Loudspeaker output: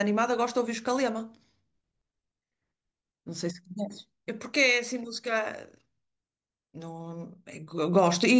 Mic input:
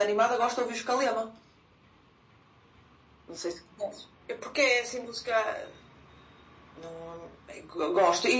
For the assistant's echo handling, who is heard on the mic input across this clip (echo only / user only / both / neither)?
echo only